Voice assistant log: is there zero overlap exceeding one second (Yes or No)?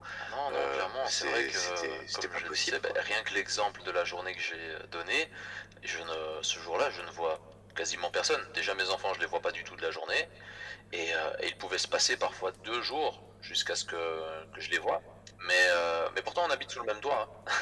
No